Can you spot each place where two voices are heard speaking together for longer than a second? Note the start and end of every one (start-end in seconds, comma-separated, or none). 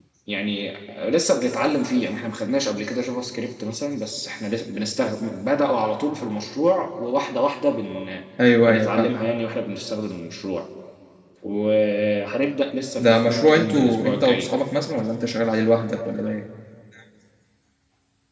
13.0-14.5